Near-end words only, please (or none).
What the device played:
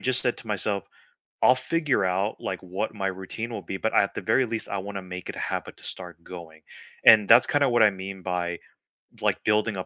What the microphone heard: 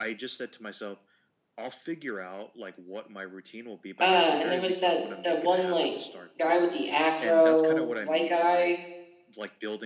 Uh, and there was that that one, like, guy with the afro, white guy.